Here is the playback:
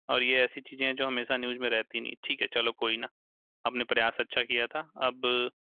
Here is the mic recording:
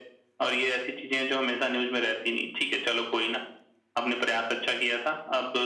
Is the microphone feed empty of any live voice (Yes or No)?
Yes